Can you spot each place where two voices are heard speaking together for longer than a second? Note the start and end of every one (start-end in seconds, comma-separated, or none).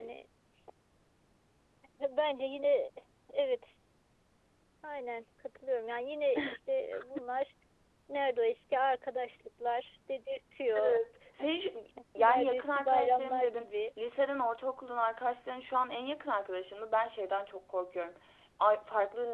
12.2-13.7